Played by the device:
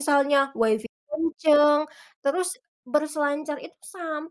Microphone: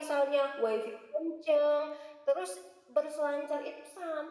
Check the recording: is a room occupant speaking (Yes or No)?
No